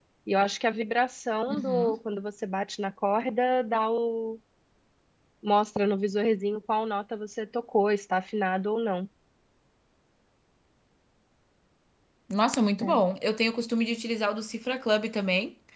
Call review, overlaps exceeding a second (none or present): none